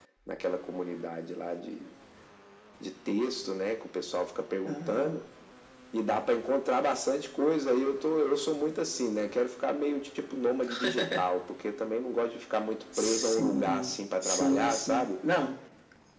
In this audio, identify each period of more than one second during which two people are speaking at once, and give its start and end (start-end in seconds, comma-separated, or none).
13.0-15.1